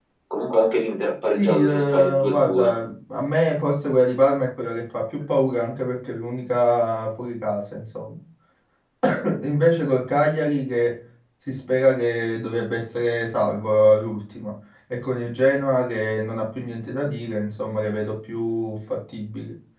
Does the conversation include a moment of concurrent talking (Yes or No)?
Yes